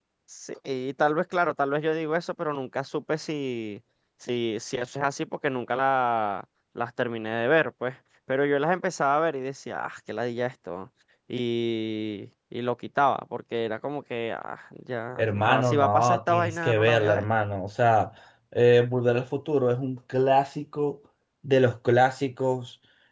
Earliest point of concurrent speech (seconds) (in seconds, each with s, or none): 15.2 s